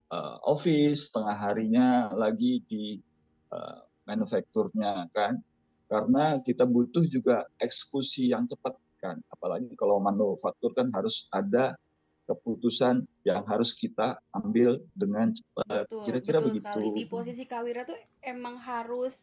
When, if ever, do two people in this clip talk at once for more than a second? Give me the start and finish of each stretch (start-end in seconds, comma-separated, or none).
15.7-17.0